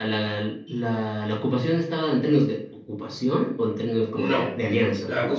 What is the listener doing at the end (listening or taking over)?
taking over